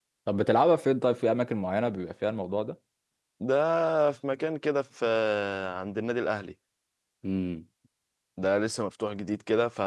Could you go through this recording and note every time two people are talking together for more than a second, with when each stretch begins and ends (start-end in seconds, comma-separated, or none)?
none